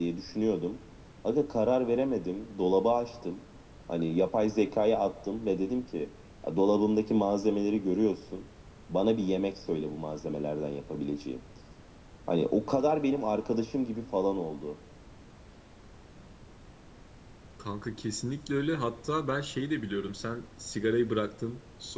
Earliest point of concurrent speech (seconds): none

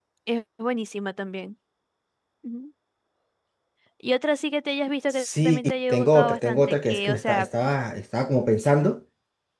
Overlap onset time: 5.1 s

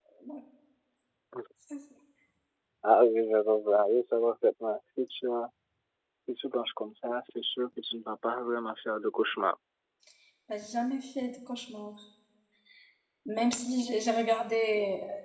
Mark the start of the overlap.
none

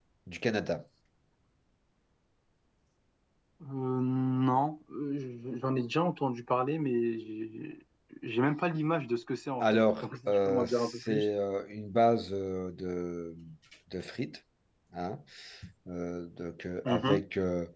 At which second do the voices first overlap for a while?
9.6 s

